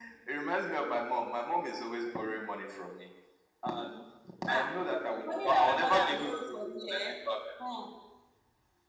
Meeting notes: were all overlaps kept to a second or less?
No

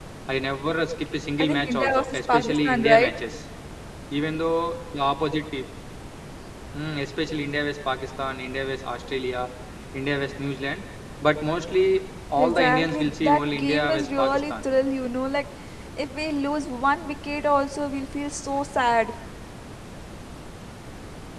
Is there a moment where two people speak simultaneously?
Yes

